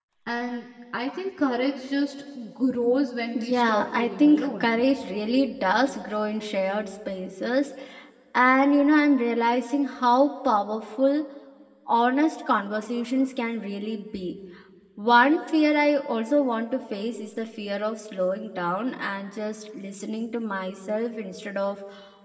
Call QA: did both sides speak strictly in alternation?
No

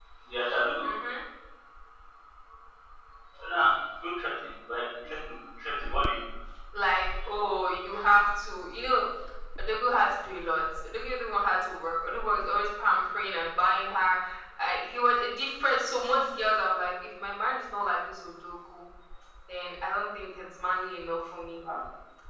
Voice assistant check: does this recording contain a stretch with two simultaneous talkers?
No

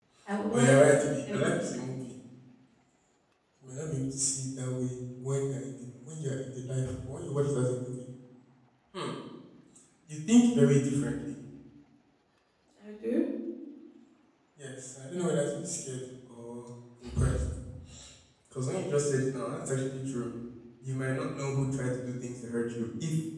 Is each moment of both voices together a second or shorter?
No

